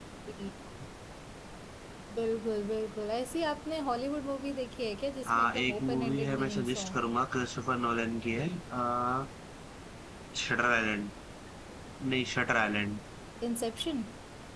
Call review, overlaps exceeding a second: present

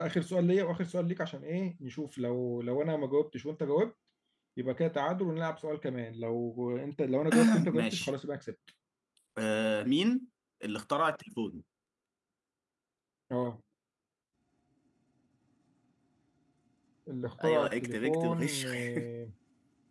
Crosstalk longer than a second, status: present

